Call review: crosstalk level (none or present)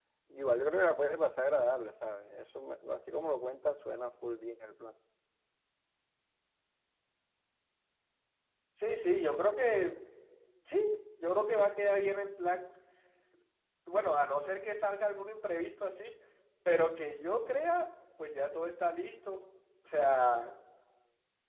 none